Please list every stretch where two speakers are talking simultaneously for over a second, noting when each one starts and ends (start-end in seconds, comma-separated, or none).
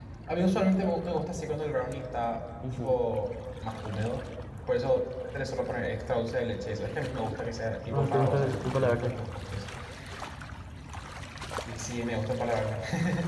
7.9-9.1